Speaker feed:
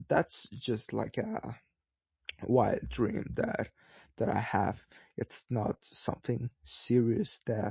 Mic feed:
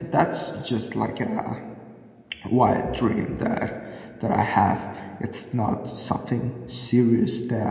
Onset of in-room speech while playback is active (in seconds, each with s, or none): none